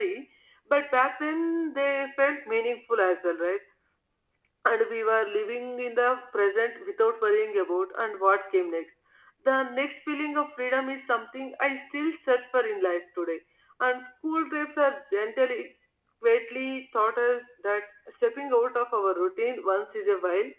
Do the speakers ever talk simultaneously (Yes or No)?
No